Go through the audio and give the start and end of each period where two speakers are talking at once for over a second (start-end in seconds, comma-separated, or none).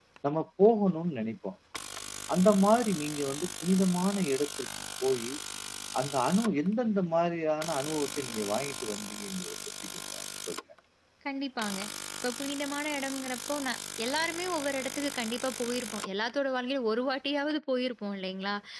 none